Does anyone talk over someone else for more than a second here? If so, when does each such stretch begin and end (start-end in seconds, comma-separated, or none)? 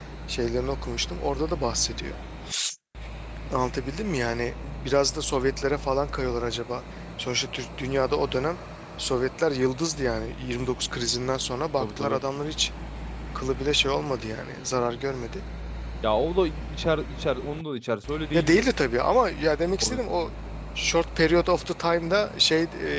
none